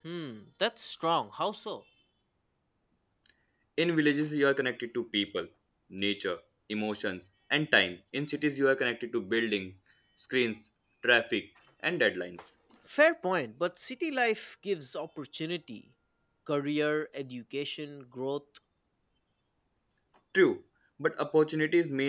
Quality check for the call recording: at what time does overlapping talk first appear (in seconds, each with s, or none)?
none